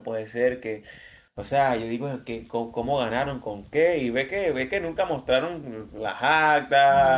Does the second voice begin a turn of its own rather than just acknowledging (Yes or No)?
Yes